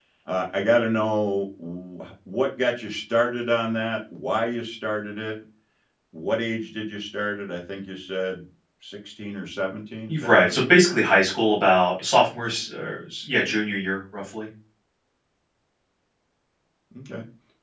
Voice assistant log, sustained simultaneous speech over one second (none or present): none